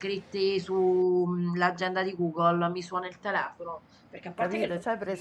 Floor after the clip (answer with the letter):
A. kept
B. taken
B